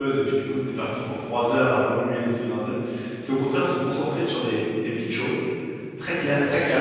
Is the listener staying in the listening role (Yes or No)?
Yes